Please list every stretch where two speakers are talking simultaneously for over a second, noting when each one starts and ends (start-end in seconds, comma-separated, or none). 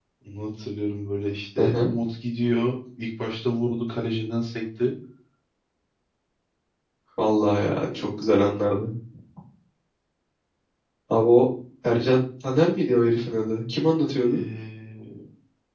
none